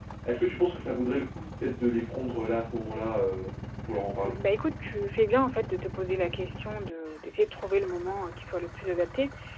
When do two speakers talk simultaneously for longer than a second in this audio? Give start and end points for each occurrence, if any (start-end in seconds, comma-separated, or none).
none